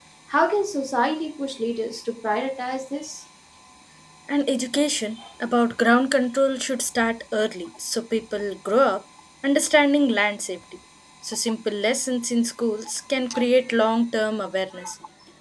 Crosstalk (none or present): none